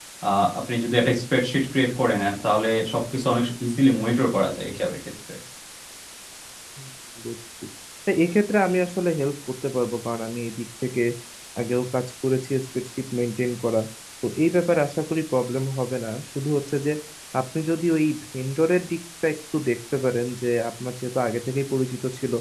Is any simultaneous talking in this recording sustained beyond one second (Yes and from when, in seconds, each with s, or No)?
No